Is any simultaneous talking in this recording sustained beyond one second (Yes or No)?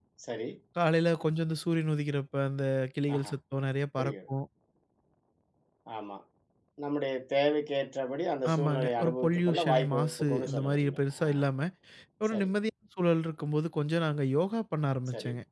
Yes